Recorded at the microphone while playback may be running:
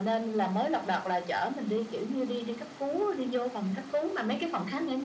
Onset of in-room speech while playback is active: none

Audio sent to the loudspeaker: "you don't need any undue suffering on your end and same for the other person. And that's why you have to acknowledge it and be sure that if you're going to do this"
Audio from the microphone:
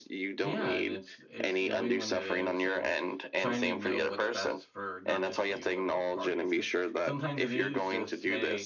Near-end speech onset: 0.4 s

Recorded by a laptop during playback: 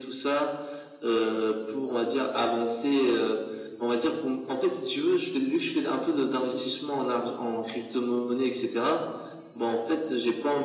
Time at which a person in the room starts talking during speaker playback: none

